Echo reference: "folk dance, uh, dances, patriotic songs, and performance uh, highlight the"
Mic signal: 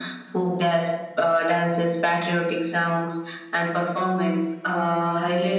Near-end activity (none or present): none